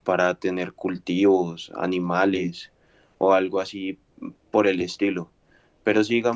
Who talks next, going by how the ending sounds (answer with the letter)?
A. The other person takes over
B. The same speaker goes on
B